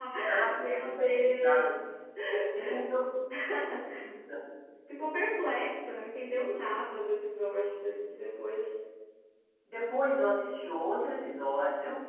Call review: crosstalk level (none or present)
present